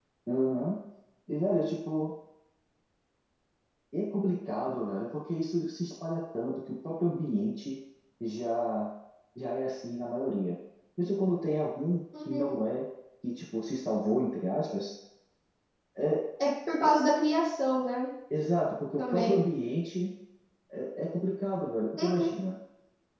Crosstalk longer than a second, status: none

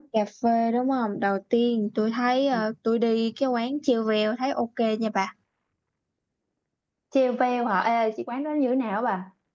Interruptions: none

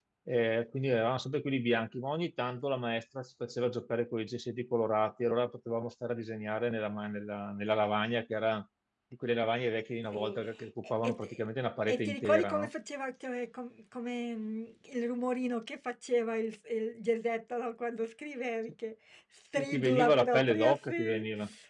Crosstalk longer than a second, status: present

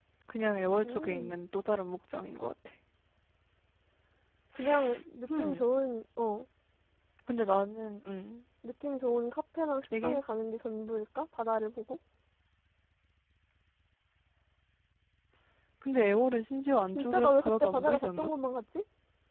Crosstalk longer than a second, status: present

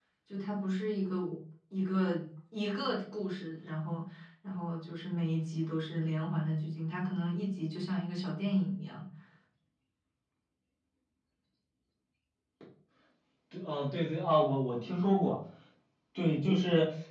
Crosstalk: none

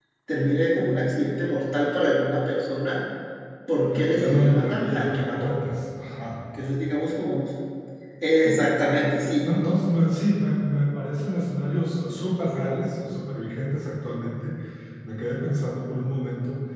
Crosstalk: present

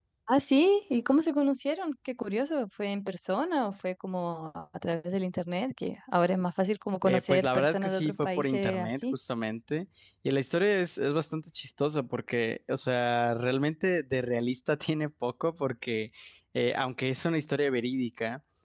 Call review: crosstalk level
present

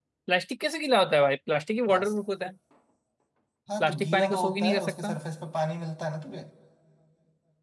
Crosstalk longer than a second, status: present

